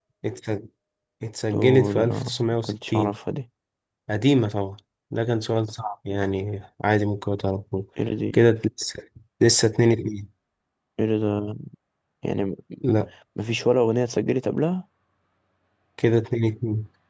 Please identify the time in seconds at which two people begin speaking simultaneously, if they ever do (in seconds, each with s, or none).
1.5 s